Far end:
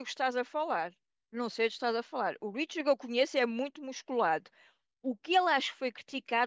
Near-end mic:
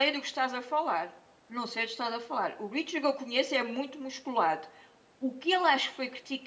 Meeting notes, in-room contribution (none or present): none